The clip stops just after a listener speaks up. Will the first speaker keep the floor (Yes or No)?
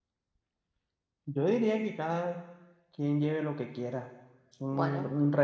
Yes